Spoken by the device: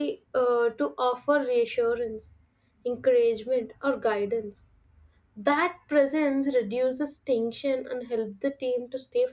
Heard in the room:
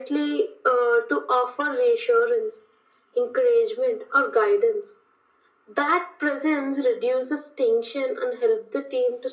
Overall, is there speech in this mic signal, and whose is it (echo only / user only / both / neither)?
echo only